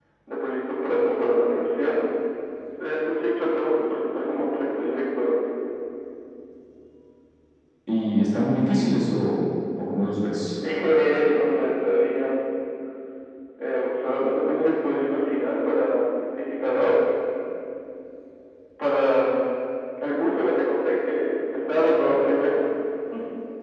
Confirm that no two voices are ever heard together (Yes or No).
Yes